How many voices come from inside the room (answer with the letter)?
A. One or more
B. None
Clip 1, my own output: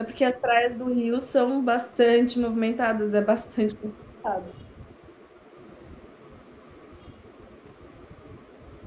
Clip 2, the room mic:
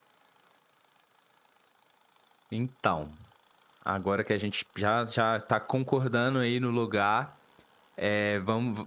A